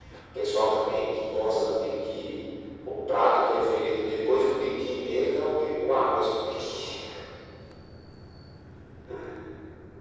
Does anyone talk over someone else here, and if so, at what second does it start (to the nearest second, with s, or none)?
none